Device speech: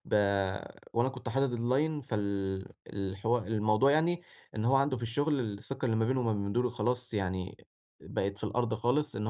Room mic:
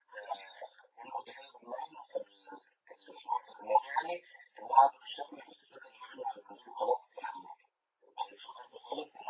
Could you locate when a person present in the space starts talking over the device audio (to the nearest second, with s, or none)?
none